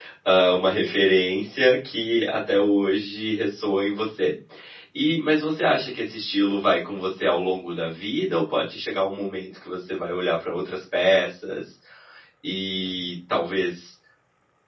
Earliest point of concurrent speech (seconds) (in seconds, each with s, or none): none